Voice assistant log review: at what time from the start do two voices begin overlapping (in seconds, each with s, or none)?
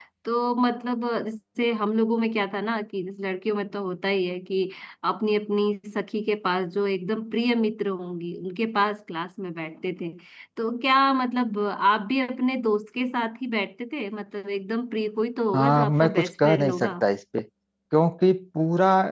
15.5 s